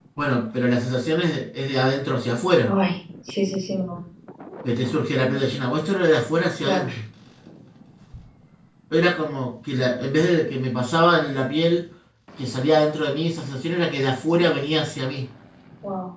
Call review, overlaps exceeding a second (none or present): none